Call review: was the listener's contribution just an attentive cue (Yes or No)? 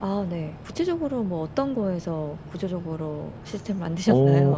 No